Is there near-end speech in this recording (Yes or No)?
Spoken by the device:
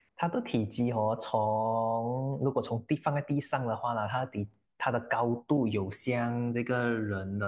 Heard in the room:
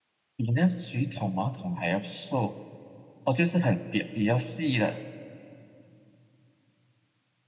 Yes